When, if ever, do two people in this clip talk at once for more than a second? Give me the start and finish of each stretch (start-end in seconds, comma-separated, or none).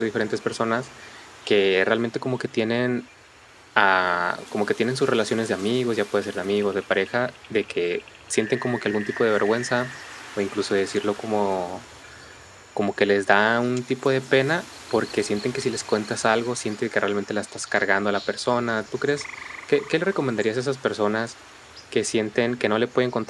none